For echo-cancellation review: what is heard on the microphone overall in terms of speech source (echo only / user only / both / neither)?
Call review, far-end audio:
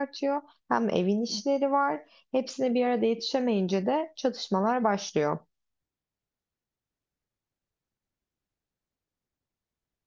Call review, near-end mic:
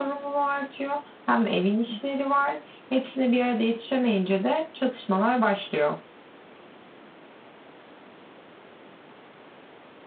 echo only